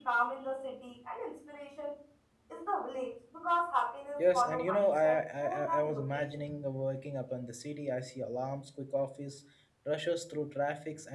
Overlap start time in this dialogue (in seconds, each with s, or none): 4.2 s